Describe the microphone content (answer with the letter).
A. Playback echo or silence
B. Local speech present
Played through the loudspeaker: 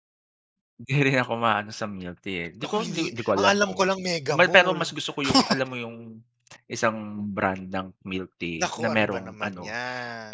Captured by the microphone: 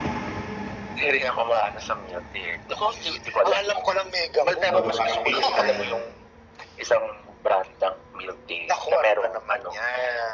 B